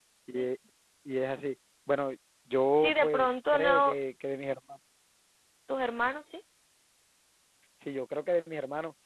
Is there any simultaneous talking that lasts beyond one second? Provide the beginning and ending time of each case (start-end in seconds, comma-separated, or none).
2.7-3.9